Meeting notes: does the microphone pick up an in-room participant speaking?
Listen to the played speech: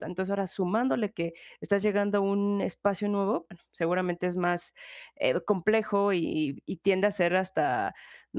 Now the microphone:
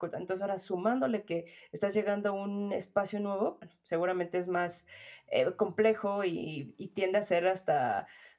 No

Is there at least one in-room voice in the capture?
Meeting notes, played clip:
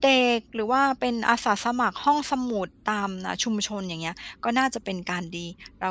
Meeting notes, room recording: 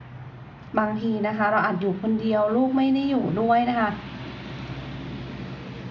Yes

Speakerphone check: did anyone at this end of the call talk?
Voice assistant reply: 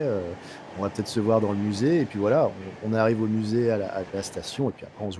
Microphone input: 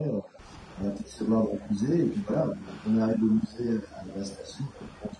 No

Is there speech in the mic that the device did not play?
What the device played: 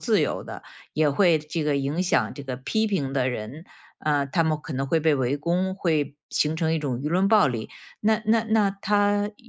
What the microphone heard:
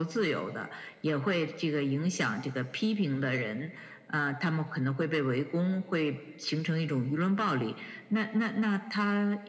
No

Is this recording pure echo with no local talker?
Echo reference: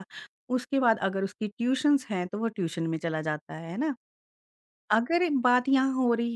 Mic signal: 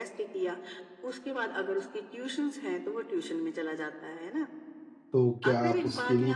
No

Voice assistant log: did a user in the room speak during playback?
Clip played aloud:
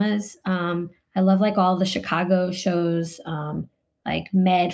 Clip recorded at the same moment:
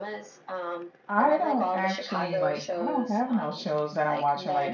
Yes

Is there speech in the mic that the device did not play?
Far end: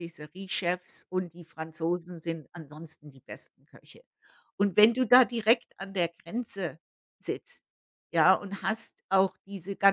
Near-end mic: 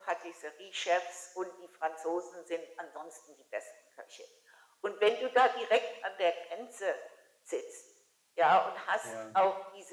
Yes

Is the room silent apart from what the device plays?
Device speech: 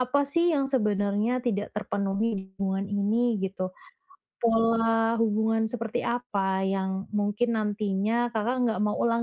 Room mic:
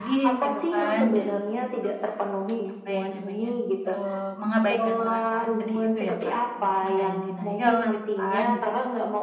No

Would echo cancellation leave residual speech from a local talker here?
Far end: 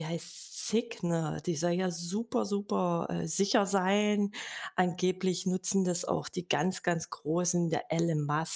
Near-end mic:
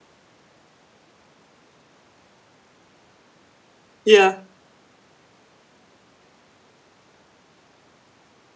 Yes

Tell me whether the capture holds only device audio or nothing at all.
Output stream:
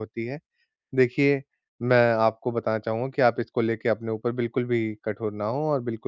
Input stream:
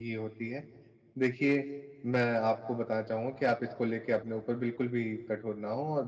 Yes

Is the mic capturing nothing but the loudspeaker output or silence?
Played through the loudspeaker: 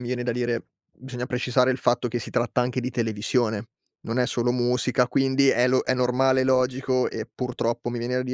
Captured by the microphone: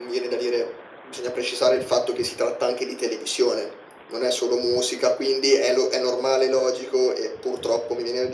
Yes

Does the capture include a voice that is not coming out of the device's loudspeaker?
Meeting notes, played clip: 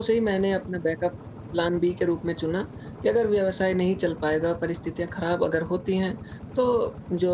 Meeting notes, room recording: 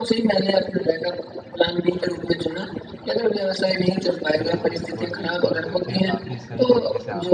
Yes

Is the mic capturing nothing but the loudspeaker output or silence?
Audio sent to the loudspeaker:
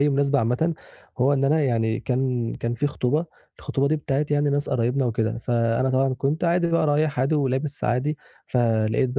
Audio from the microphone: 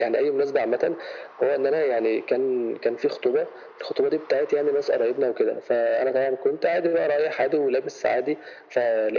Yes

